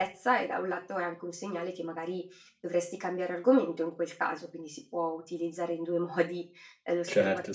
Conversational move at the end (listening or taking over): taking over